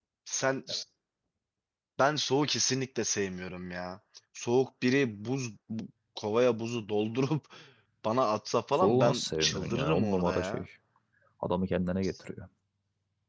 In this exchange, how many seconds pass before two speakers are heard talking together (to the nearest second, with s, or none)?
9 s